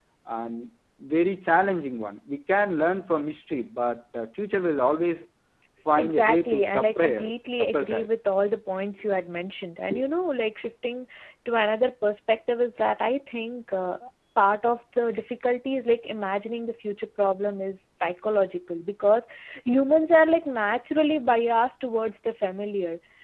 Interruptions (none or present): present